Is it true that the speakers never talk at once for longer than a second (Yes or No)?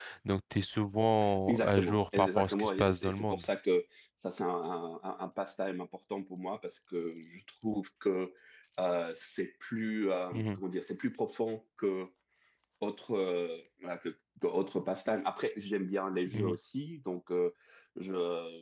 No